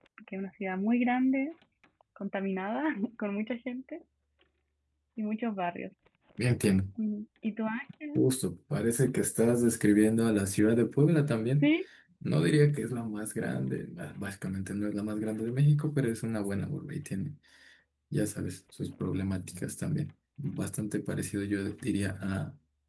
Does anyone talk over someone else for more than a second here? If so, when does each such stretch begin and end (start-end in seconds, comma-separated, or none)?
none